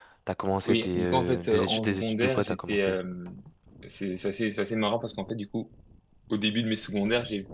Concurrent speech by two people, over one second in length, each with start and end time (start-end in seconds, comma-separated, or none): 0.7-3.0